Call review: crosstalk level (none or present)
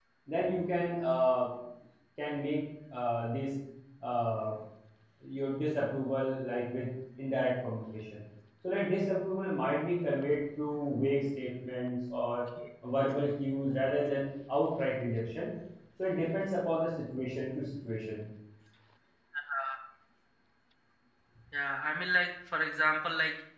none